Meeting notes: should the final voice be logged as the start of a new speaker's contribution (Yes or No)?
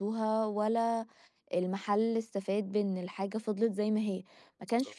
No